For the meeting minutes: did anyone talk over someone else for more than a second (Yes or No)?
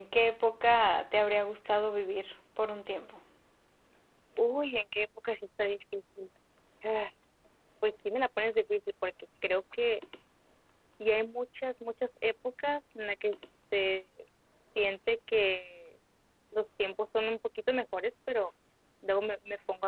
No